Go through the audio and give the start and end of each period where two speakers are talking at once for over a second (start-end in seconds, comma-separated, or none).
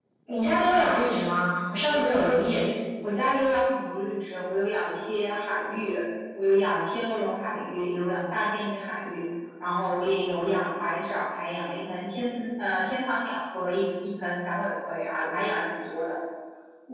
none